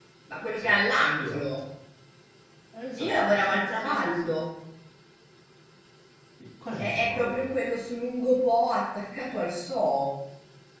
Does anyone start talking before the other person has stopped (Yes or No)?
Yes